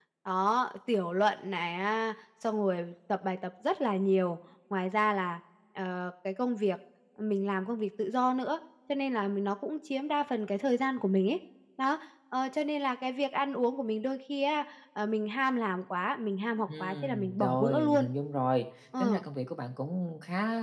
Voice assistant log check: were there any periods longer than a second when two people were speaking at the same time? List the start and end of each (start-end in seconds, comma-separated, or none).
16.6-18.1